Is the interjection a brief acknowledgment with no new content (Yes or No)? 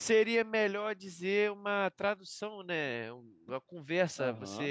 Yes